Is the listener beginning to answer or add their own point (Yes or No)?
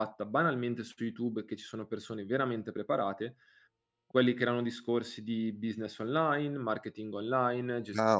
Yes